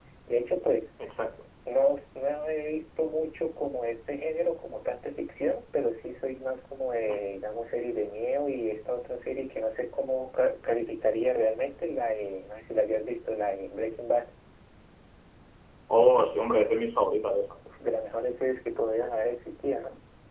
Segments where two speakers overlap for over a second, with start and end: none

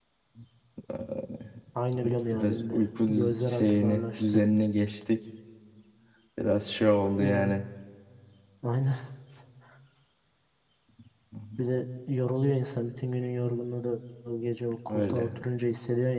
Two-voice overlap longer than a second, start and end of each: 2.3-4.4

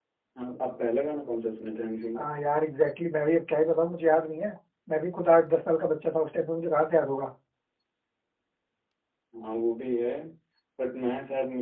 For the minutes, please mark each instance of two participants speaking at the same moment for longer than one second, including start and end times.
none

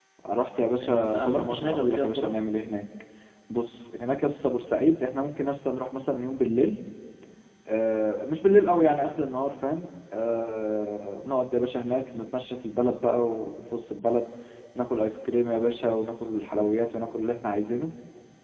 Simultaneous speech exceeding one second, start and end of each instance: 0.8-2.3

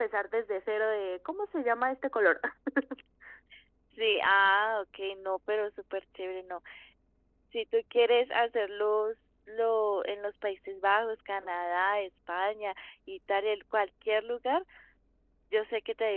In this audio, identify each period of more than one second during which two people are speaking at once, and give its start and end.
none

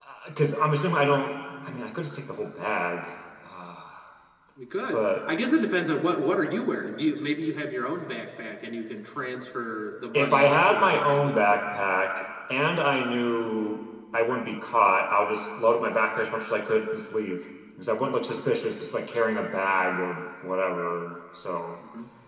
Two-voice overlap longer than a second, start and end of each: 10.1-11.5

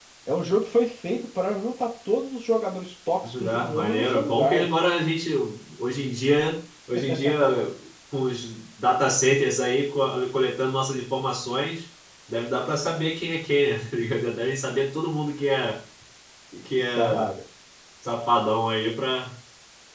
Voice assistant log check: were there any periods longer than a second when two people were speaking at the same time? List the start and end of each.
3.5-4.7

